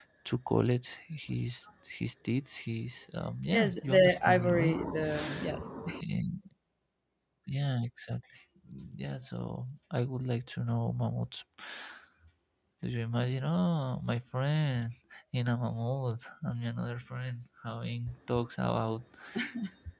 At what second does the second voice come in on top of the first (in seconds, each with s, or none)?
3.5 s